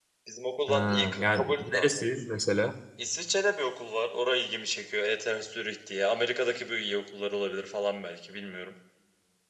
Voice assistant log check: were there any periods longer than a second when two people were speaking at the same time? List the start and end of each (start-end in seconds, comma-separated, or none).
0.7-2.0